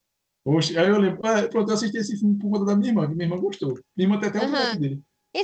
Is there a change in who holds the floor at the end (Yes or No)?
Yes